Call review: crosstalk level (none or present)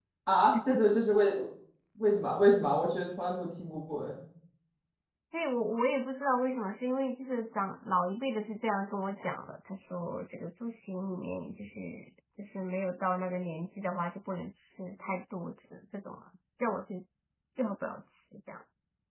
none